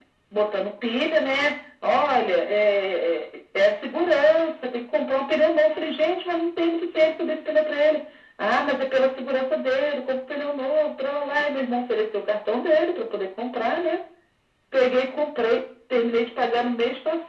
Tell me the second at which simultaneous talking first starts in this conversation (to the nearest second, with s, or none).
none